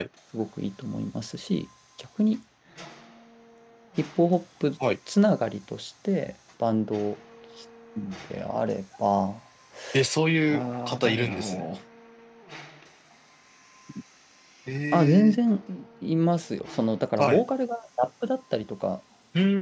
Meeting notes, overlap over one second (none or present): present